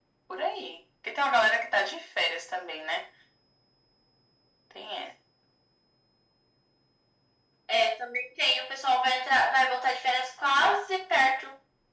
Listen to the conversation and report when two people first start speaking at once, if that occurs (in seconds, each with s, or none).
none